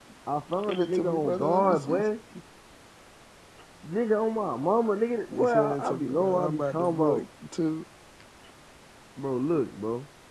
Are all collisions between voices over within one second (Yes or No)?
No